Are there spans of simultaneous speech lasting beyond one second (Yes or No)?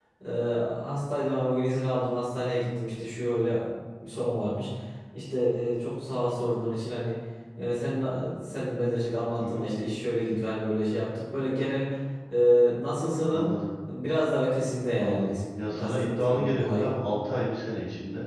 Yes